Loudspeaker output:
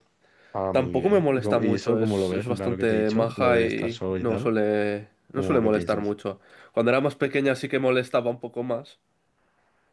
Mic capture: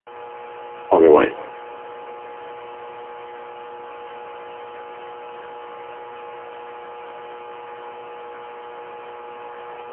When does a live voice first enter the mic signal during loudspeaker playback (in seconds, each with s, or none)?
0.9 s